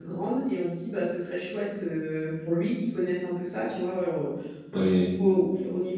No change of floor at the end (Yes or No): Yes